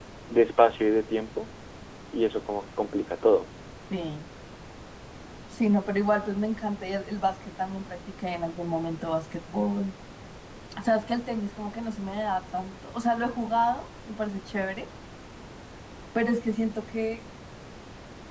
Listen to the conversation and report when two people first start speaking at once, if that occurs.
none

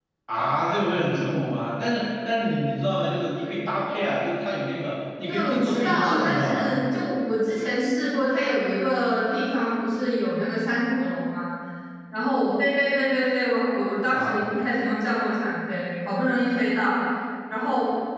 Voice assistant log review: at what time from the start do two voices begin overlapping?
5.3 s

